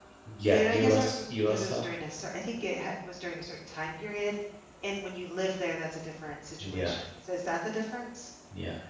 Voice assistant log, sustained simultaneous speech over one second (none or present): present